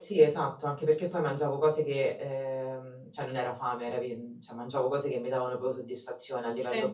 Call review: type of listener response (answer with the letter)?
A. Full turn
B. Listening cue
B